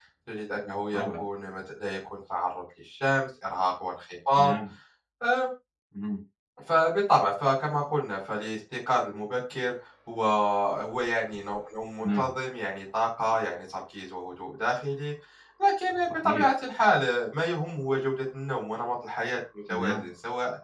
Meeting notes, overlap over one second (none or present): none